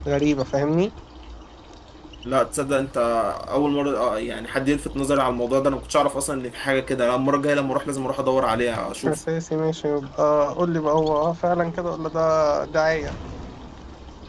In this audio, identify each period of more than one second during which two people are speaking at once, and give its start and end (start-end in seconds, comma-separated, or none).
none